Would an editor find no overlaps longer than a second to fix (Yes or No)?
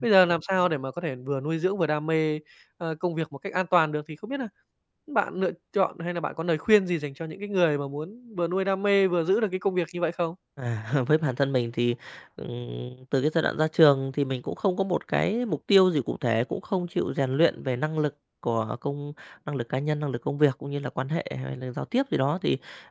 Yes